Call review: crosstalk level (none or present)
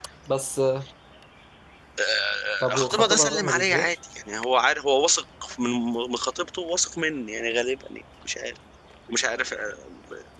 present